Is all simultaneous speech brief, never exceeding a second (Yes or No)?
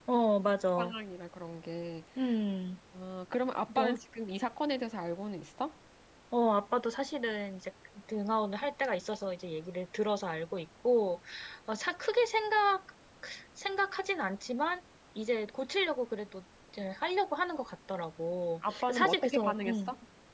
No